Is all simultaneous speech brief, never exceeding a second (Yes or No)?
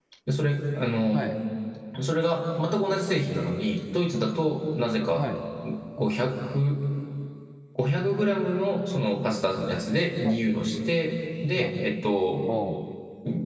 Yes